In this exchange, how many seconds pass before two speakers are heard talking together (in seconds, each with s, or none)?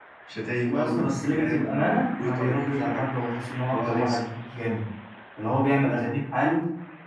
0.7 s